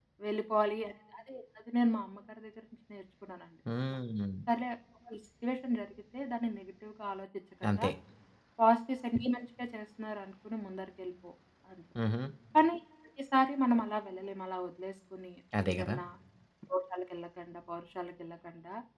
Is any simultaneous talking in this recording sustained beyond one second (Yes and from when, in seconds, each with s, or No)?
No